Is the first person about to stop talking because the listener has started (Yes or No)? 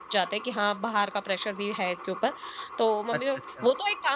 No